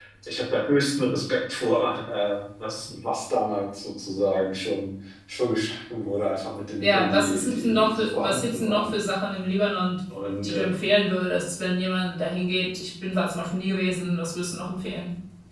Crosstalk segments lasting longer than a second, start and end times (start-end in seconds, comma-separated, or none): 6.8-9.1